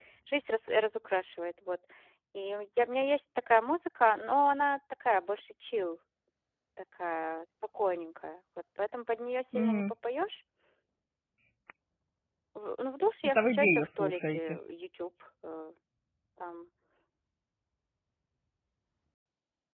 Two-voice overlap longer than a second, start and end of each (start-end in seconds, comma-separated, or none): 13.2-14.6